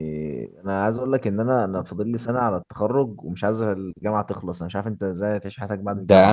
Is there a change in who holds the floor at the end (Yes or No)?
Yes